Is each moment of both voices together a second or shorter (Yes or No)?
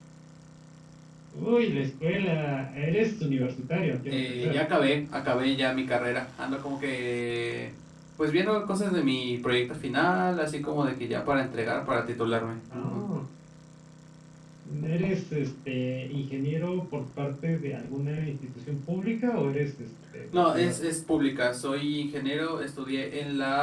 Yes